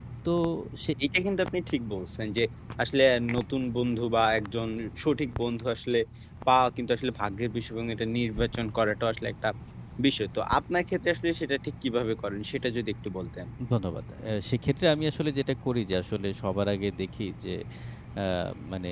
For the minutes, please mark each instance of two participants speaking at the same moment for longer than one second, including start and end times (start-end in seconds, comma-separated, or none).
none